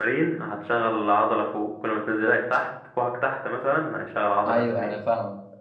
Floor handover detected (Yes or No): Yes